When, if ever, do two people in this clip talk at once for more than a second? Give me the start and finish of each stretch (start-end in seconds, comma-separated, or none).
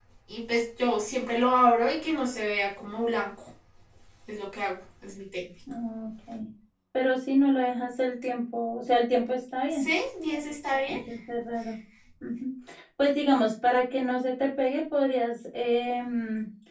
none